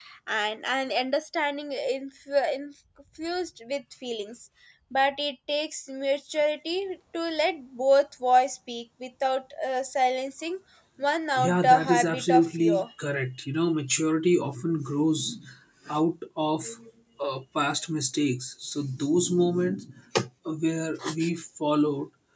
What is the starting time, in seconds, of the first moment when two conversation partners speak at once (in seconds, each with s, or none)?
11.4 s